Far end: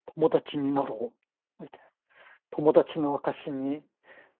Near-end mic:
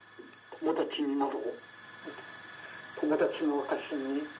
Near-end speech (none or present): none